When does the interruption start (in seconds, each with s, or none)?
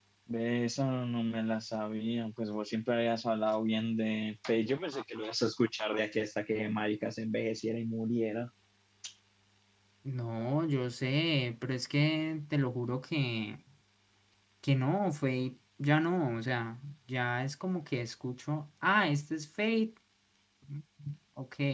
none